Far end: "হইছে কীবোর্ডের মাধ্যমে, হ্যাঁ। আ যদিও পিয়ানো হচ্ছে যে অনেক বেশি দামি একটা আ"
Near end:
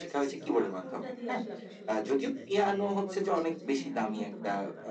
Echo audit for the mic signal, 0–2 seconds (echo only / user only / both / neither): both